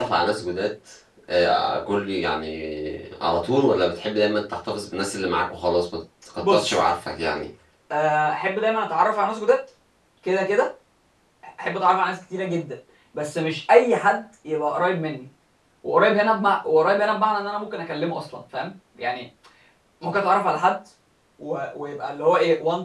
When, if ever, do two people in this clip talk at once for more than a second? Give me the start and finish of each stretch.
none

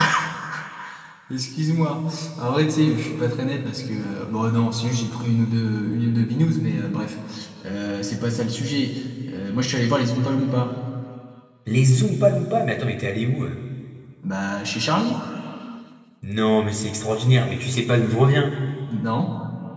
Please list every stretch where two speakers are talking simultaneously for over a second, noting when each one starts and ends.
none

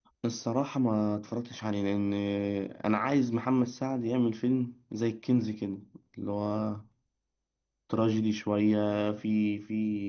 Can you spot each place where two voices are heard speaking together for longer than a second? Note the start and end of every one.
none

